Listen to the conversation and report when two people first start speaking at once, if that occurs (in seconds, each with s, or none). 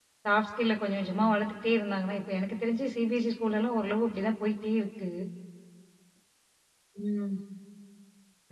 none